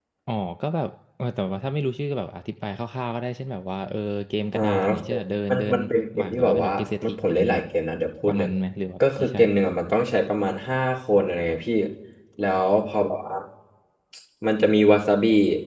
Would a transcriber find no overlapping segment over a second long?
No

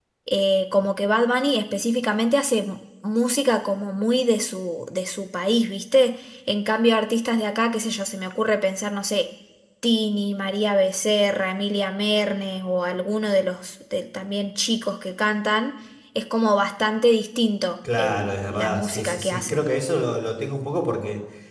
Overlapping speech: Yes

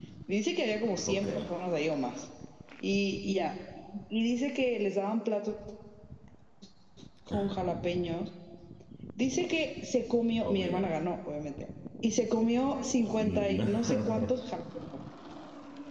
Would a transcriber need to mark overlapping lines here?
Yes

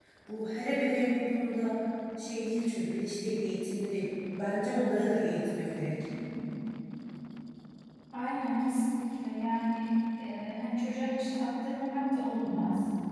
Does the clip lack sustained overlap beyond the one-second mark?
Yes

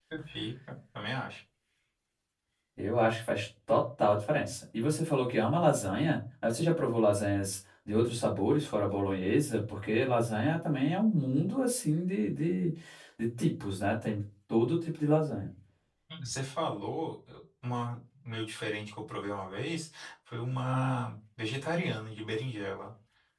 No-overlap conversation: Yes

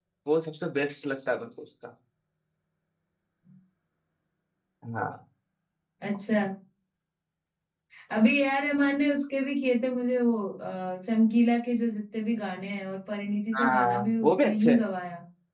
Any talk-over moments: Yes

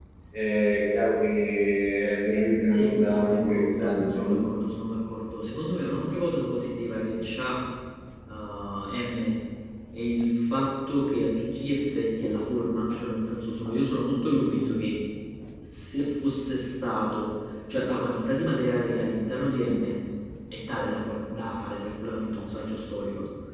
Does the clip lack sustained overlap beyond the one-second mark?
No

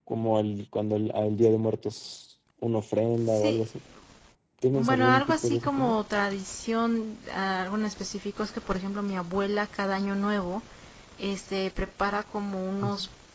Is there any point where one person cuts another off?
Yes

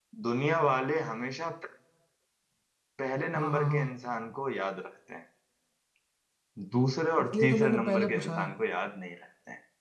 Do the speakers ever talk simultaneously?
Yes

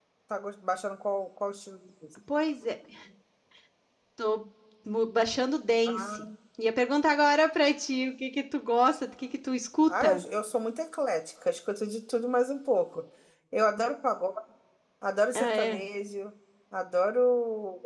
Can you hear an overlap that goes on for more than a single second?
No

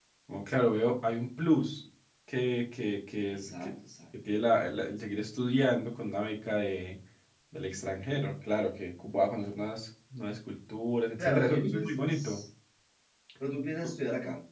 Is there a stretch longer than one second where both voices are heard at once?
Yes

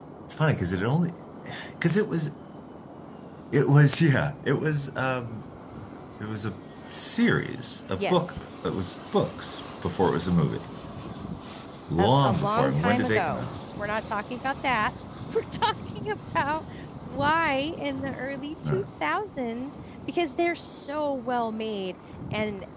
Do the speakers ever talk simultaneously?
Yes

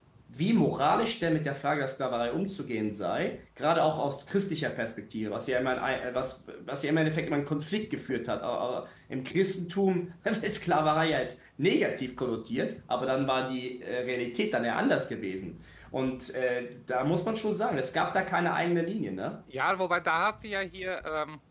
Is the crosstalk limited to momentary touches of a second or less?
Yes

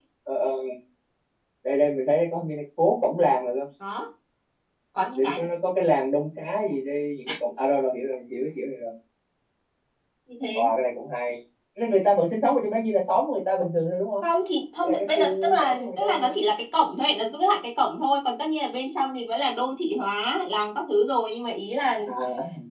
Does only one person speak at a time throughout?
No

